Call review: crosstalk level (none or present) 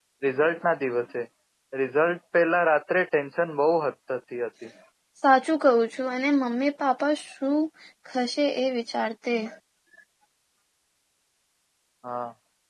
none